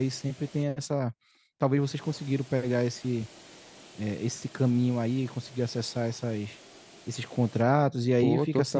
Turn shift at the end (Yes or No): Yes